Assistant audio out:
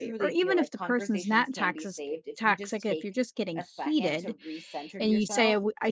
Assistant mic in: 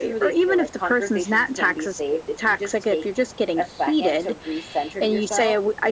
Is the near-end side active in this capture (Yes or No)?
No